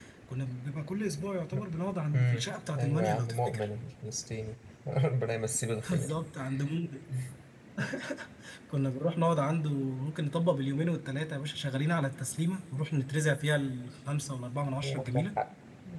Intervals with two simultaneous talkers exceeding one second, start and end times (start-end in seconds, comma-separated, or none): 2.1-3.7